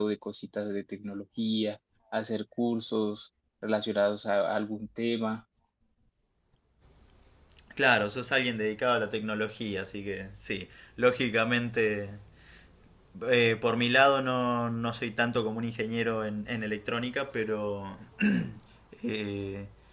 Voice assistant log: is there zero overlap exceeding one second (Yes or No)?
Yes